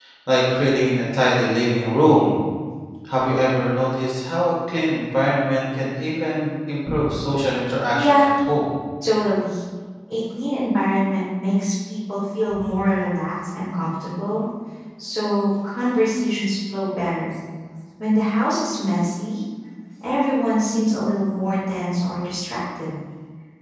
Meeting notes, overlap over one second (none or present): none